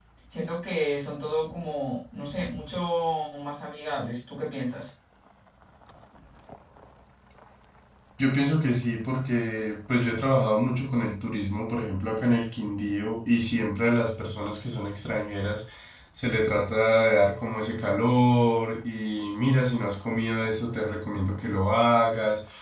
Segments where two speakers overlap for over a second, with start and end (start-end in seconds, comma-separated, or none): none